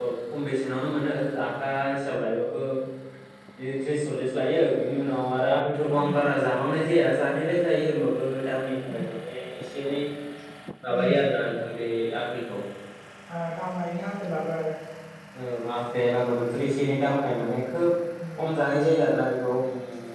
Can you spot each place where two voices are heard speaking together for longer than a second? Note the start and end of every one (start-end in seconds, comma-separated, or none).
none